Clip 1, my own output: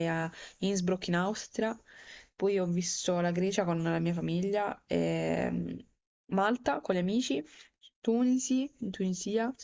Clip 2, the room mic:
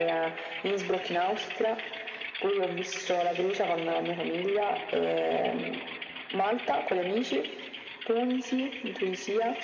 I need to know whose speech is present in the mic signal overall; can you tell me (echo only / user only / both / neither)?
echo only